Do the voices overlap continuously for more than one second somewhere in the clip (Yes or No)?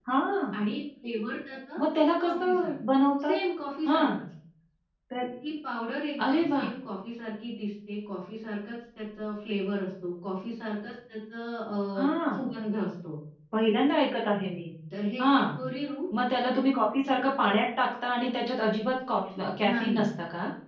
No